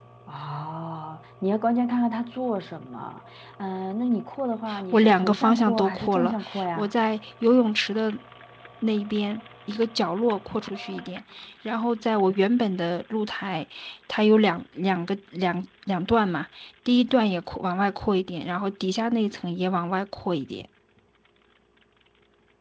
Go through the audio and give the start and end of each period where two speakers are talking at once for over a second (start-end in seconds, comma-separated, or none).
4.9-6.9